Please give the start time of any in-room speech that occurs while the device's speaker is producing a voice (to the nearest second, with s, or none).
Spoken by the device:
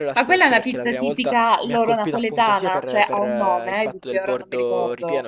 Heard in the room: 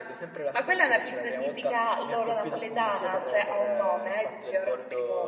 none